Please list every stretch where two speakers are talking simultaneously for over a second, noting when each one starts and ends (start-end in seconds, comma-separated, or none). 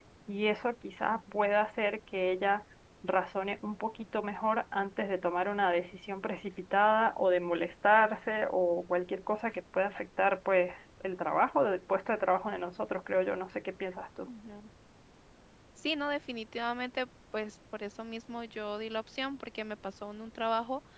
none